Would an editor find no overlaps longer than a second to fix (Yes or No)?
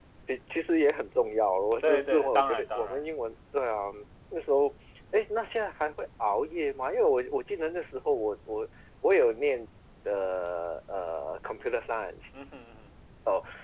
No